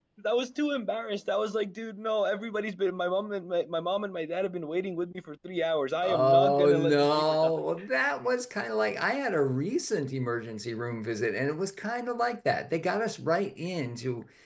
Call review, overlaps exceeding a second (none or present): present